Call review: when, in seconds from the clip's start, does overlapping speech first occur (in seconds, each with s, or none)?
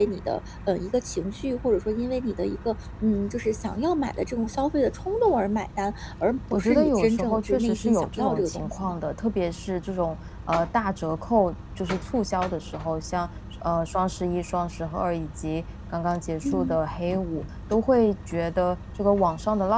6.5 s